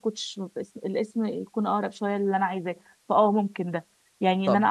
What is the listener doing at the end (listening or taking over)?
listening